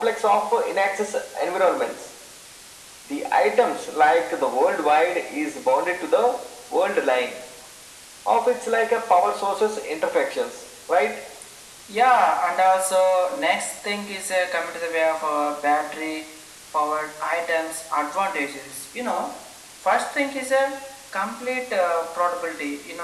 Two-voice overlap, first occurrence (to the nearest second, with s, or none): none